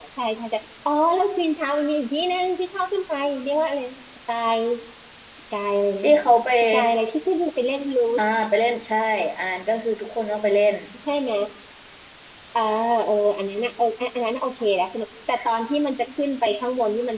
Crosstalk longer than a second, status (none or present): none